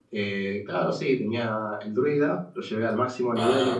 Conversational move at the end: listening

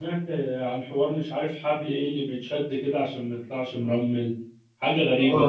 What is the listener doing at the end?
taking over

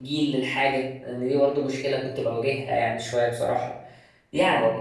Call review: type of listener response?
listening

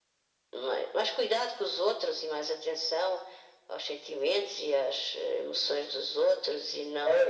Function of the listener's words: taking over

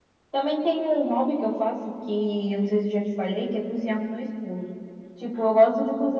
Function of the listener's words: listening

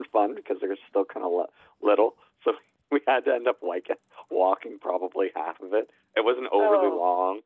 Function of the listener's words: listening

